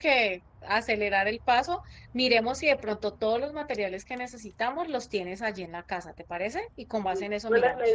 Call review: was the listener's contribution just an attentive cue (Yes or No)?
No